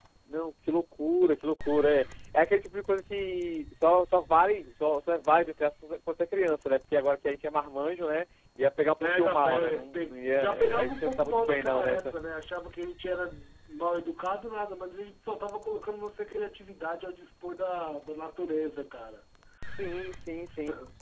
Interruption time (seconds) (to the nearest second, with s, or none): 9 s